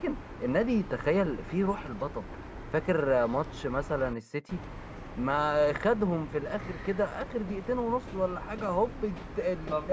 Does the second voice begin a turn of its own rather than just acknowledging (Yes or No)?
No